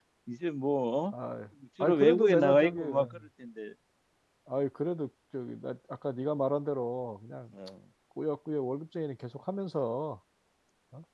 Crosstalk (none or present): present